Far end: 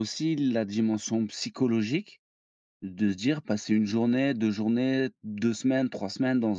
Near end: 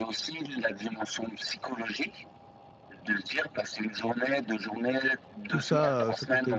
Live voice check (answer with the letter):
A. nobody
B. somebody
B